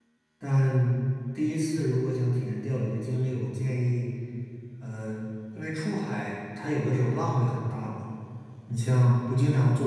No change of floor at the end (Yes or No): Yes